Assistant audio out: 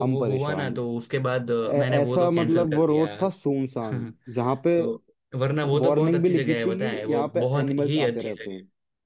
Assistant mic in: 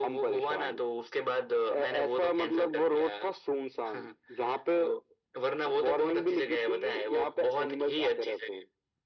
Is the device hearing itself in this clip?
Yes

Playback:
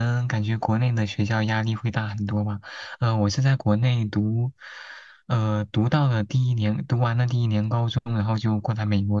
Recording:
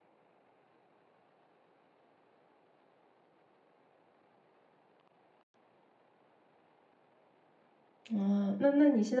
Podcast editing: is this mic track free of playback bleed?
Yes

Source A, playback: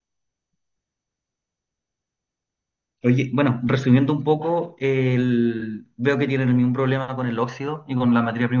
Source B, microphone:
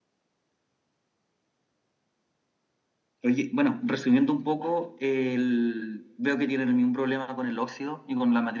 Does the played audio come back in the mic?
Yes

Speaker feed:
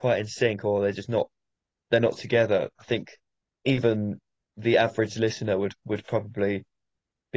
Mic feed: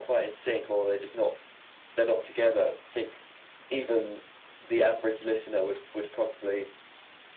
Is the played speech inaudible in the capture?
No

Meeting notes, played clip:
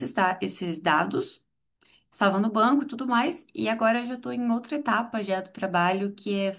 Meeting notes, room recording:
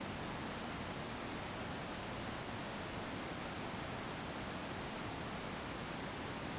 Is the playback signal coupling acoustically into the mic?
No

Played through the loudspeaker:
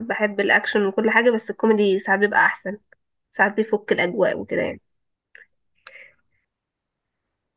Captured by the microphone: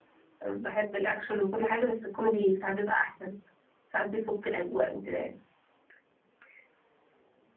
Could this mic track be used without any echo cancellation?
No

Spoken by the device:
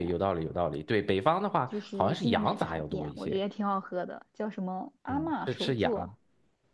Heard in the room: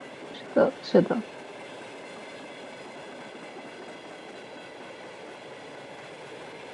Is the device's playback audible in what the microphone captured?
No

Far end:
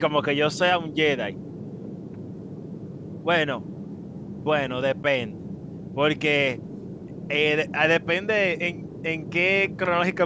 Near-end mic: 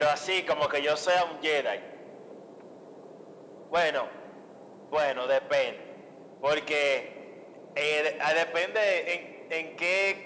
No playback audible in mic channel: No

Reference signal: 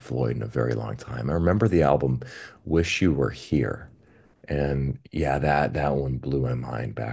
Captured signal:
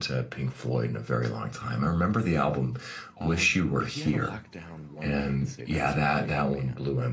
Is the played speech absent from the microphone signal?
No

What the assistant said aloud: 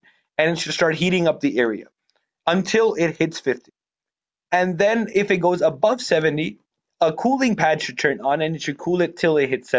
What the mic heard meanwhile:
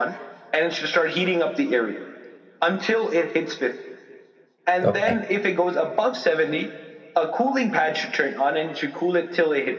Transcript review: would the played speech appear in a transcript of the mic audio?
Yes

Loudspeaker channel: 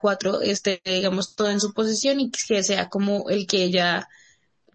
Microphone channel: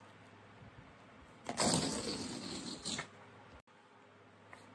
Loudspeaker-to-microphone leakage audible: No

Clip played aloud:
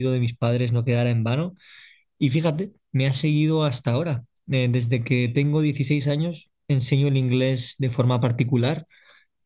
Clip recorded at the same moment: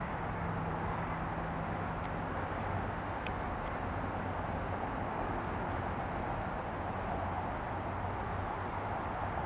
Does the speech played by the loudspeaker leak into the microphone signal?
No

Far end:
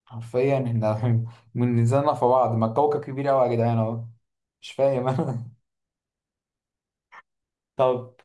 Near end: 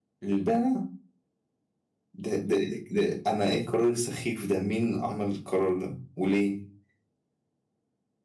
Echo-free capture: Yes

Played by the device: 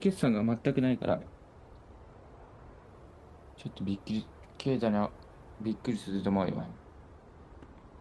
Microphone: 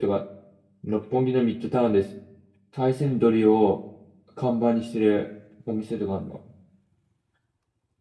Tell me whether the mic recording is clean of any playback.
Yes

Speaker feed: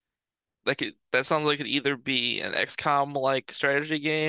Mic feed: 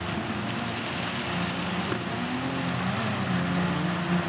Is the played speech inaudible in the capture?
Yes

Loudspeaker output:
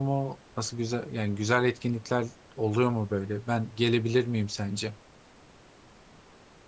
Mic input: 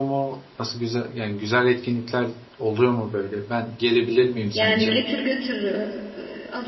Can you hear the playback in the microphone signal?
Yes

